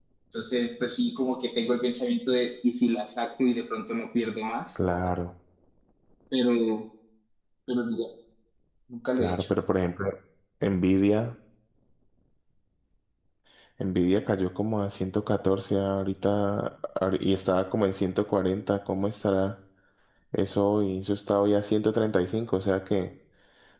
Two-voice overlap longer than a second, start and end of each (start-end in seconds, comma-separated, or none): none